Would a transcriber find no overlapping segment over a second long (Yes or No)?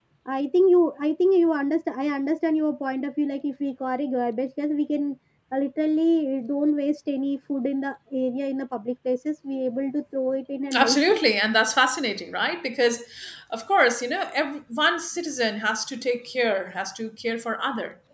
Yes